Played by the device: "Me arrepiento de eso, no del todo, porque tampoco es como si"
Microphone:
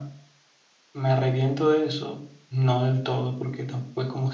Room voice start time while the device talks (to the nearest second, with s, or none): none